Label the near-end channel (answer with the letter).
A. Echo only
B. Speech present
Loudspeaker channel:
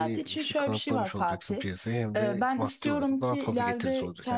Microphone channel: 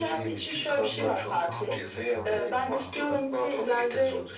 B